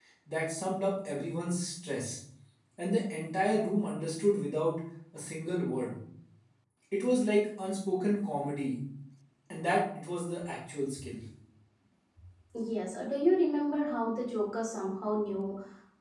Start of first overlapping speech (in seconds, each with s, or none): none